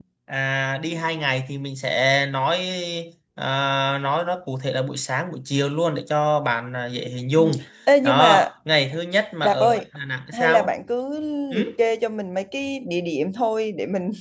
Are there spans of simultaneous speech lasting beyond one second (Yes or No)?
No